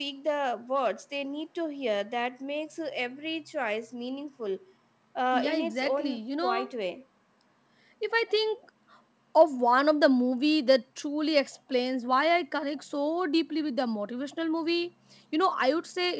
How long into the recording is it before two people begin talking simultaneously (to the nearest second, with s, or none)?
5 s